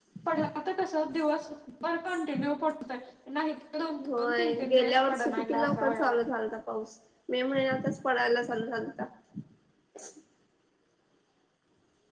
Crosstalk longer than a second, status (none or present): present